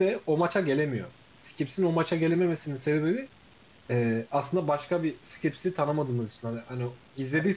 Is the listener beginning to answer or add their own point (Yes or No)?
No